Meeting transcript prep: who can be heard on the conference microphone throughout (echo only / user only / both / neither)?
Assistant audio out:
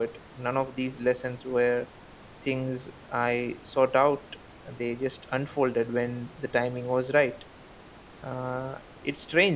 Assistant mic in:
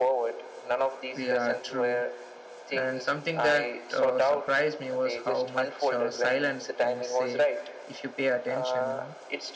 both